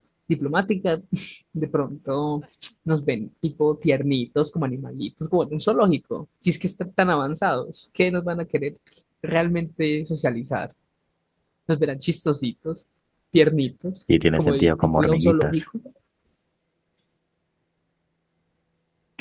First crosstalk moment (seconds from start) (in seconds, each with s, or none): 14.4 s